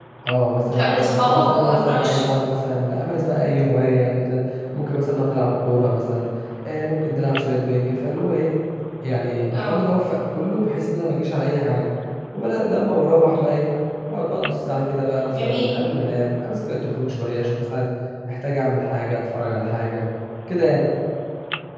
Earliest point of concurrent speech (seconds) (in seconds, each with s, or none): 0.7 s